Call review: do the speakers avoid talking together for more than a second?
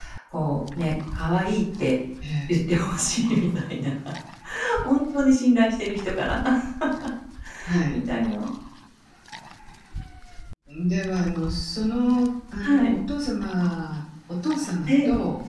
Yes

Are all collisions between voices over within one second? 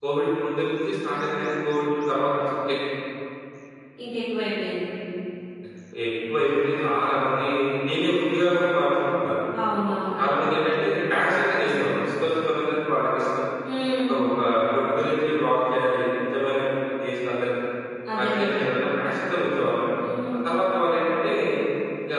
Yes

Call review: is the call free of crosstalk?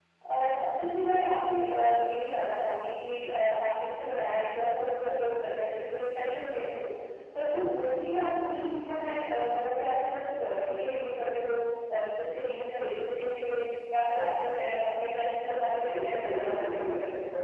No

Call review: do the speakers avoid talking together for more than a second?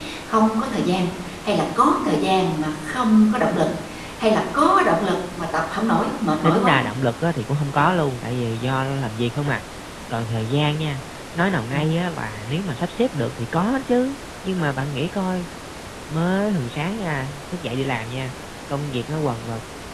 Yes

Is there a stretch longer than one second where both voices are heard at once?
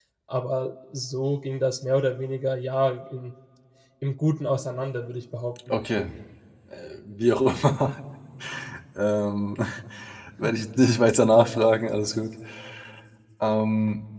No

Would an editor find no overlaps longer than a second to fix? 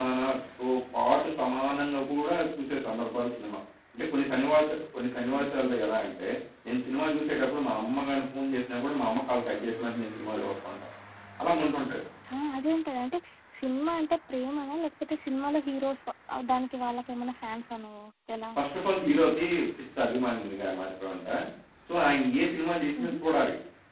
Yes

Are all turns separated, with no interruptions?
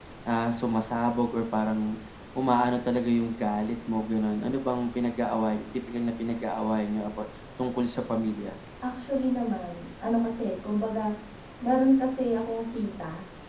Yes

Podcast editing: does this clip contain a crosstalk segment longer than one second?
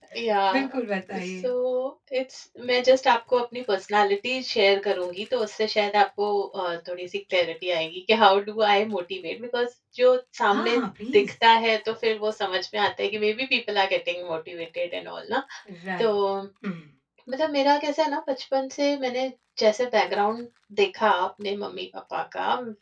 No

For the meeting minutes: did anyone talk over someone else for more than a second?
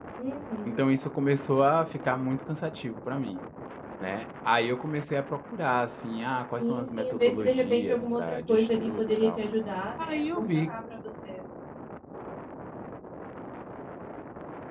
Yes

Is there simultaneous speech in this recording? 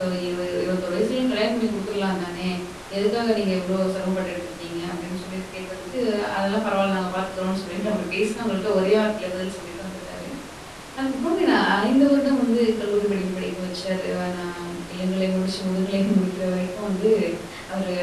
No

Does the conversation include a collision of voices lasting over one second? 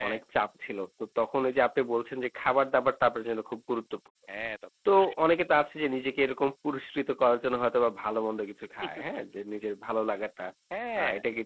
No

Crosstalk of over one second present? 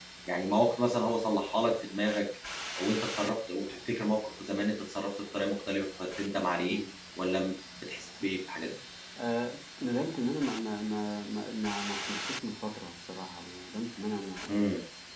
No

